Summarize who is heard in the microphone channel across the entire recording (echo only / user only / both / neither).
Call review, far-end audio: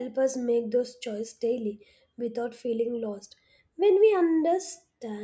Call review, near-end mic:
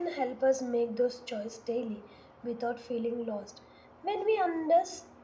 echo only